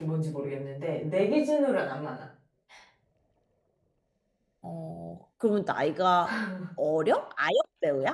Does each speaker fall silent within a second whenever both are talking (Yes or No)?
Yes